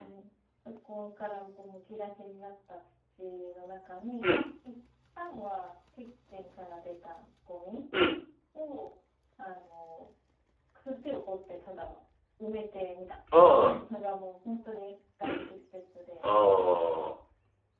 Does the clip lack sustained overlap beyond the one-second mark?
Yes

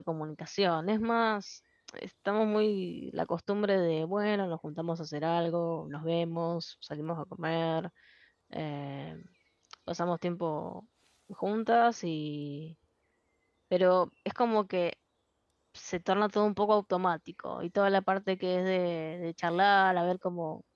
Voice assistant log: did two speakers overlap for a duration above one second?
No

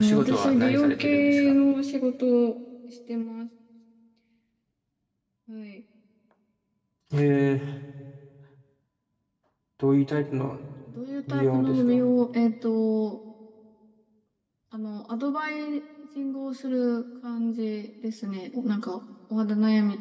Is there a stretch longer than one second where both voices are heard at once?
Yes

